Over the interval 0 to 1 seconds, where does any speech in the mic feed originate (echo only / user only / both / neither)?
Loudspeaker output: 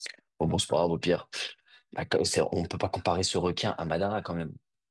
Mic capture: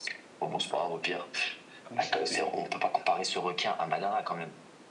echo only